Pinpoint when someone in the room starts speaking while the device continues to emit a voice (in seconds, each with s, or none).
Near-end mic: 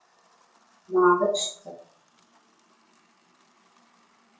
0.9 s